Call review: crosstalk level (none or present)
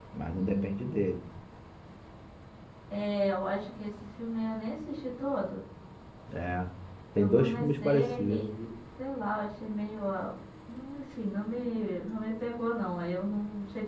present